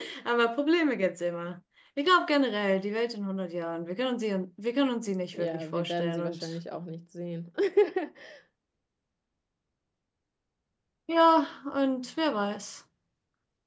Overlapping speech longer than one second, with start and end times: 5.3-6.5

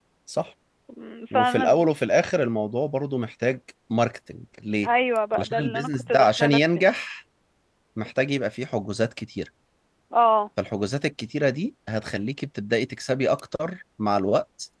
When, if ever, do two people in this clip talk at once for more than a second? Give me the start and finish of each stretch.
5.4-6.9

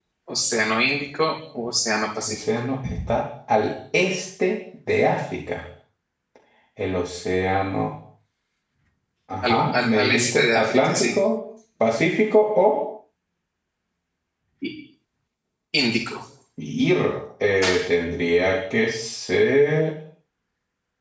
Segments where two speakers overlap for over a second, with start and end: 9.4-11.1

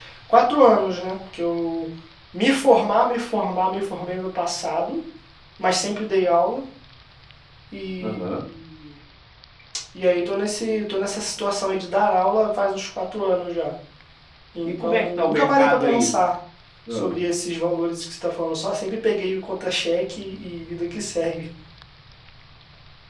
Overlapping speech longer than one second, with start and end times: 14.7-16.1

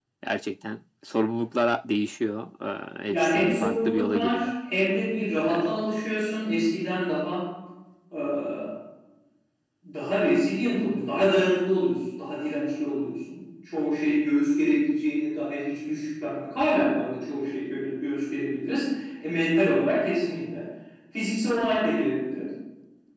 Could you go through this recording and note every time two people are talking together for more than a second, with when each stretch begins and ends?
3.1-4.5

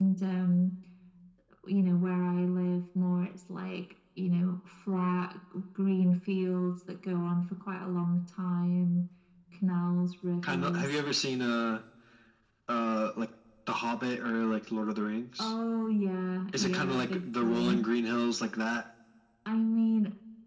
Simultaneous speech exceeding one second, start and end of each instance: 16.6-17.8

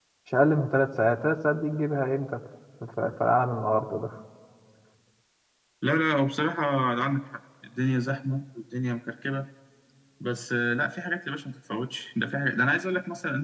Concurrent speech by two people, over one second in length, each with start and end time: none

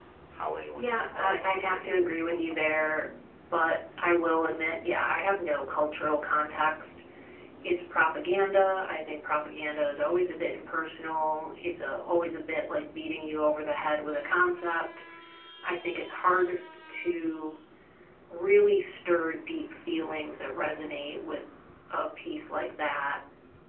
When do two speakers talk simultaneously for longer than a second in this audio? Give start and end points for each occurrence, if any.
0.8-2.7

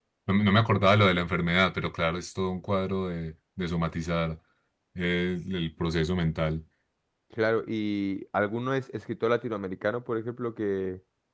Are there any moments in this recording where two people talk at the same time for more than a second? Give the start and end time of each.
none

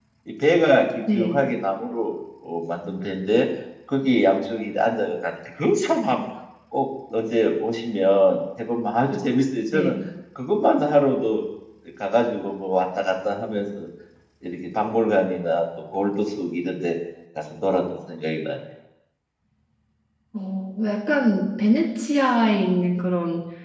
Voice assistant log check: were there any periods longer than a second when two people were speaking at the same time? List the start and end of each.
none

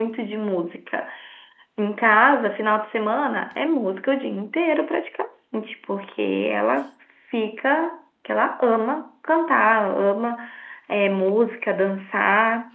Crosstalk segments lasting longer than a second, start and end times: none

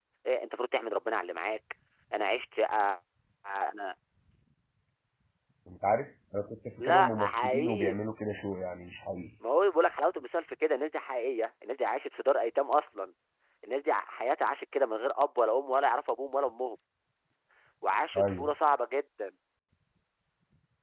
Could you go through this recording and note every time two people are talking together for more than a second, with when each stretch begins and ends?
6.8-8.1

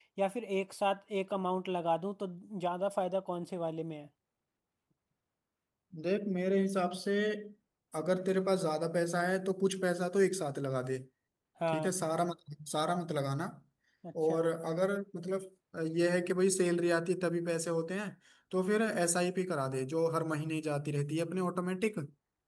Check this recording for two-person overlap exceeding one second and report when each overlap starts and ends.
none

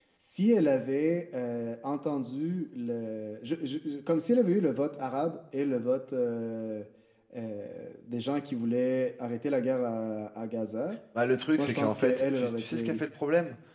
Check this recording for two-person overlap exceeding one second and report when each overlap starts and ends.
11.6-13.0

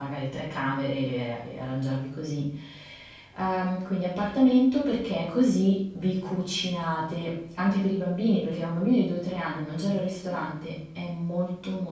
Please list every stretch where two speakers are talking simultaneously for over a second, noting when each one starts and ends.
none

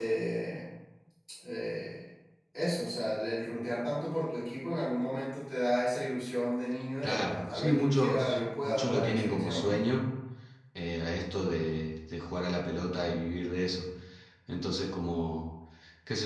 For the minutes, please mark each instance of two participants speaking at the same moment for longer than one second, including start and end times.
7.0-9.8

